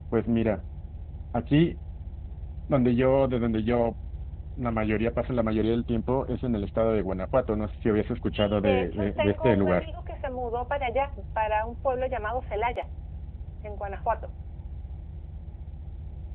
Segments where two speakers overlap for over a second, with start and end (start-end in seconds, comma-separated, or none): 8.2-9.8